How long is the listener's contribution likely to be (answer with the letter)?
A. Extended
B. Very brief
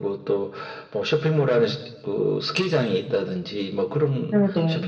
B